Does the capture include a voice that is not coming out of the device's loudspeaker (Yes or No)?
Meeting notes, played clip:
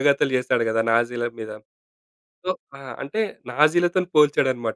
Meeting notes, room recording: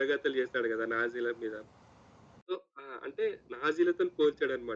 No